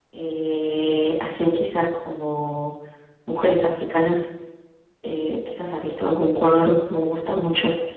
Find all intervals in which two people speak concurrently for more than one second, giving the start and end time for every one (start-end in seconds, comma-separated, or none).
none